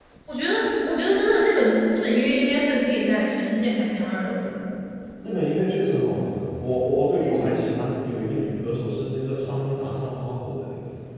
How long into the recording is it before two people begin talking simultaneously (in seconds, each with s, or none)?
none